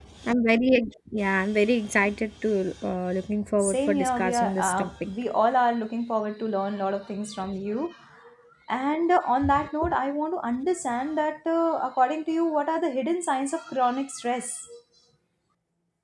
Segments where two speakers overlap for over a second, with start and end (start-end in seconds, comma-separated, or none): 3.6-5.1